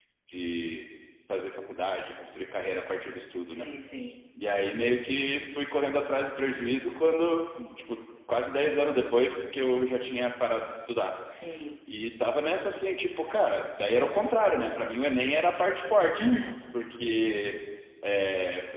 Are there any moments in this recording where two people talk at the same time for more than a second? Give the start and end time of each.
none

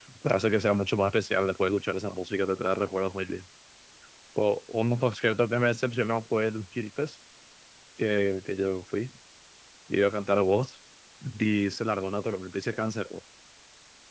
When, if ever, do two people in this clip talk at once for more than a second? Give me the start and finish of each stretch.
none

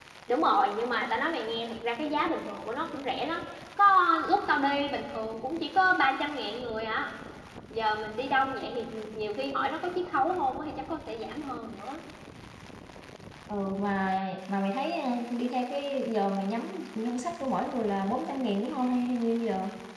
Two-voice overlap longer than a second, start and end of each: none

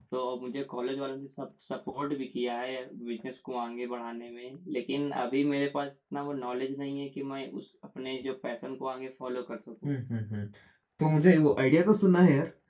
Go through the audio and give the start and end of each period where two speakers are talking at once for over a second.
none

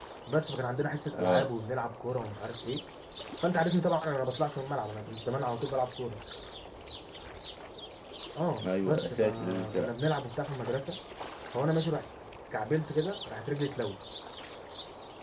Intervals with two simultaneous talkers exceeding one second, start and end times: 8.6-9.9

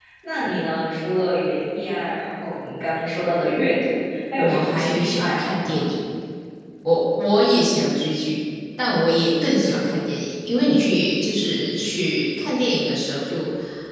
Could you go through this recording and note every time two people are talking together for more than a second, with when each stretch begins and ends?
4.3-5.8

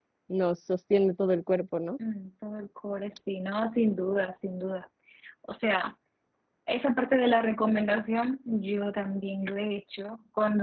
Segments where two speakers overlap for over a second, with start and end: none

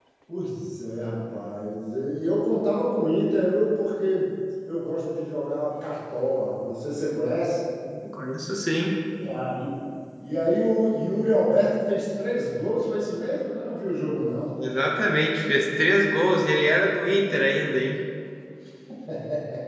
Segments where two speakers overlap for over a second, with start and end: none

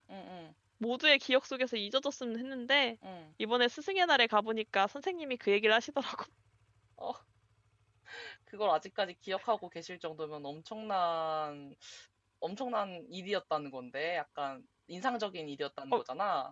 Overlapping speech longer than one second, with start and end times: none

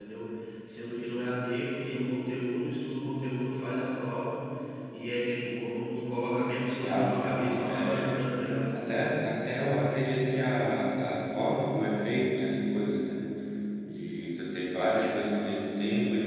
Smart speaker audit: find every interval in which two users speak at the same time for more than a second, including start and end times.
6.8-8.3

